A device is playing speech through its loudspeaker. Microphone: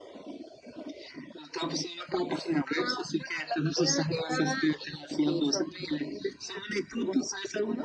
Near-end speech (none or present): none